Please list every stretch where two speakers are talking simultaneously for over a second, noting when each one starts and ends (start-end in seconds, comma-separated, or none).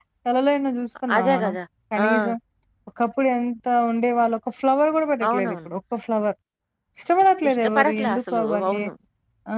7.5-8.8